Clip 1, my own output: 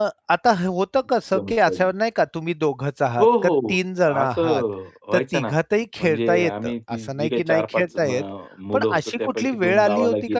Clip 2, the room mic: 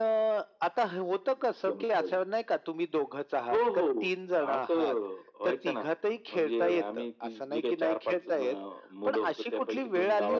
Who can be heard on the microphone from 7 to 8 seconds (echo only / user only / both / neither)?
echo only